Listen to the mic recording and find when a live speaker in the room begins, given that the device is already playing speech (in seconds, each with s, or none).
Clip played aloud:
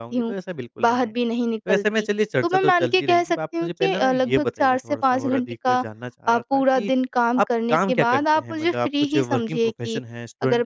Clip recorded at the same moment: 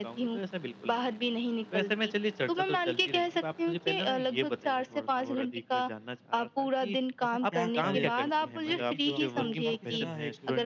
7.2 s